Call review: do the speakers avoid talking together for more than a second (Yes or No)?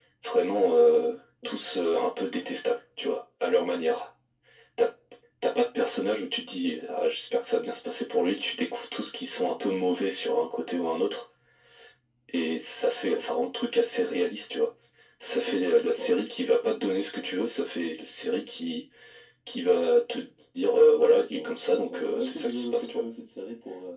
No